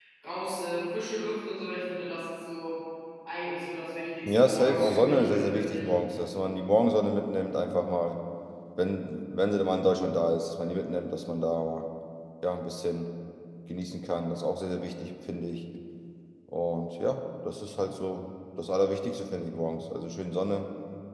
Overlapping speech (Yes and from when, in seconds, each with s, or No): Yes, from 4.3 s